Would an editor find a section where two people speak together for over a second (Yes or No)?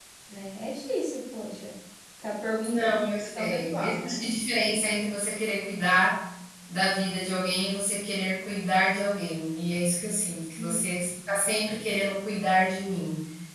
Yes